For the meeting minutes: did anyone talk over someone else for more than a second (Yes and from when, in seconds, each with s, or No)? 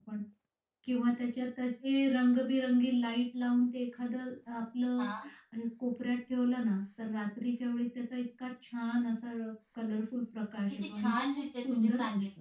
Yes, from 10.7 s